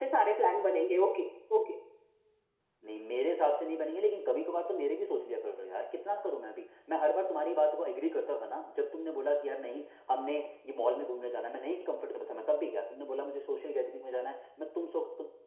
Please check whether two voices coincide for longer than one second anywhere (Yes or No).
No